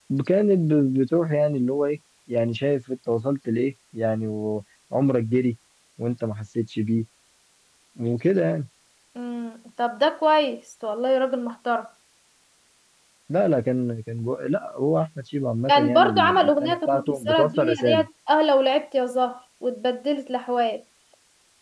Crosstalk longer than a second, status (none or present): present